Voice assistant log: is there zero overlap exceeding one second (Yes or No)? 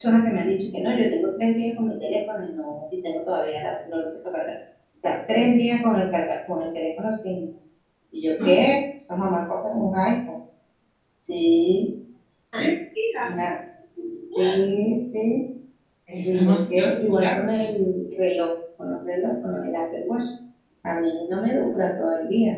No